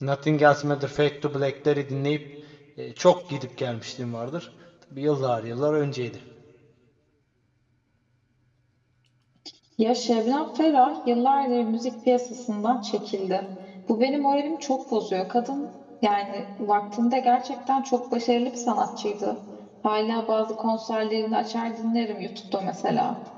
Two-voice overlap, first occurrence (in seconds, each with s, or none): none